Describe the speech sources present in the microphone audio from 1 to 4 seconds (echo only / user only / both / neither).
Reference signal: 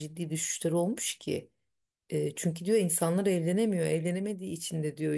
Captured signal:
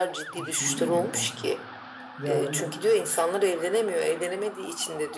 both